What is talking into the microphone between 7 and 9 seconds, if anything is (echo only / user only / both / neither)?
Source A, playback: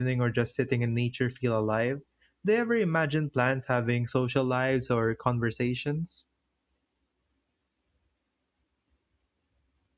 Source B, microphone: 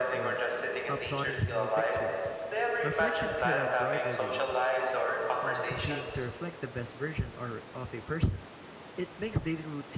user only